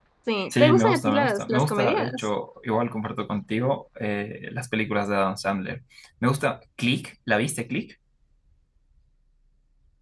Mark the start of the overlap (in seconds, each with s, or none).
0.6 s